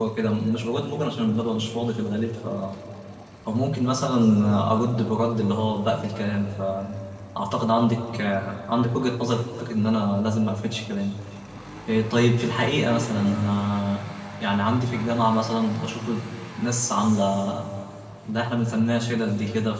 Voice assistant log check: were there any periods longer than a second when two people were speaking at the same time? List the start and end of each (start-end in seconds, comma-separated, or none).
none